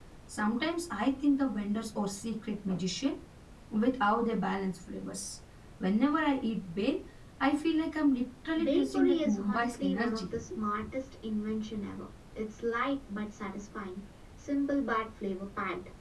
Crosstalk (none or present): present